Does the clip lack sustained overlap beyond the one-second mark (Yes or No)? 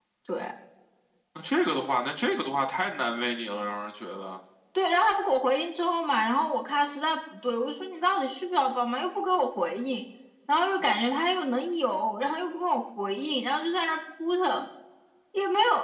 Yes